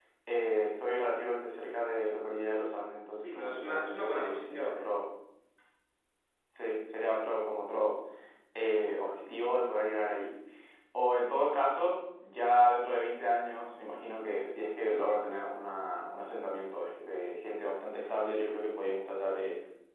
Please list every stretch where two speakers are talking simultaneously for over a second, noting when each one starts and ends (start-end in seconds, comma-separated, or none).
3.2-4.9